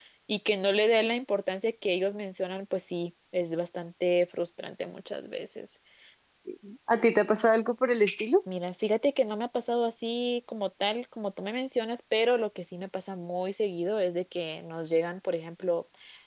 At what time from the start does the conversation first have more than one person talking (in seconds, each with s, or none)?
none